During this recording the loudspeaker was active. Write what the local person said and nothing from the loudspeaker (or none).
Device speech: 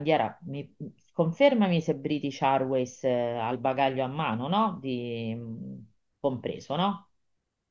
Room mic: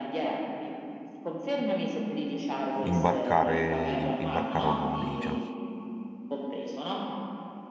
imbarcare, im- imbarcare una valigia.